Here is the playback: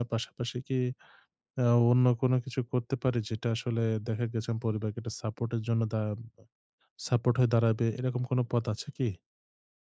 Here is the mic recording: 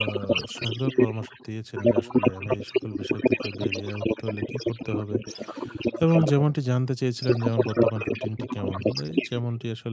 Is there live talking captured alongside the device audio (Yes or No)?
Yes